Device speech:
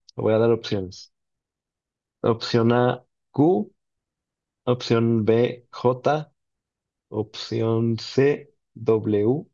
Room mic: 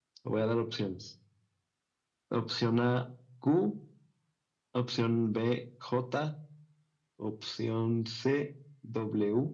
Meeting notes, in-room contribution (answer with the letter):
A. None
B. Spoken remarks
A